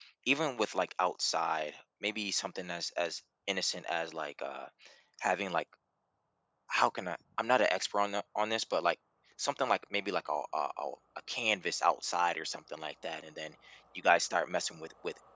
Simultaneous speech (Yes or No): No